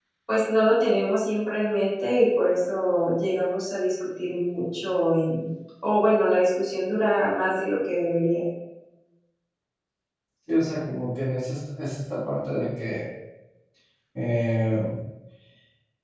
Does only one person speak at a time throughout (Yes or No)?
Yes